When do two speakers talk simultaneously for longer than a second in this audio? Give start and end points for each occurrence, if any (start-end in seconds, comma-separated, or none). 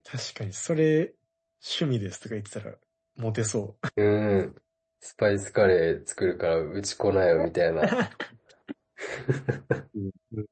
none